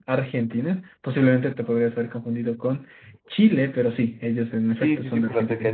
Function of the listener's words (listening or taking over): taking over